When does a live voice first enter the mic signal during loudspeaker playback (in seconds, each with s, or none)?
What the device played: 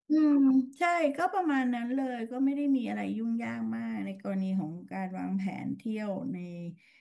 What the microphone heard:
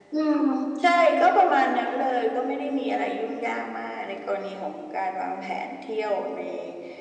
none